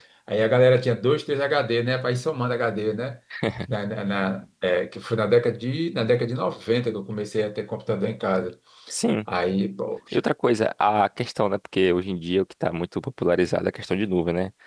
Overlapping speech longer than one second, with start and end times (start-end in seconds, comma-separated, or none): none